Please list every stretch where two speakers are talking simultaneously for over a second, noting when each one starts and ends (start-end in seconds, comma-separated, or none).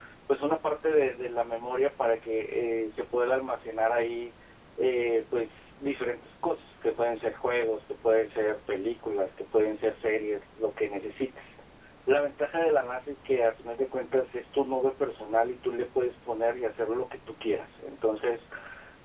none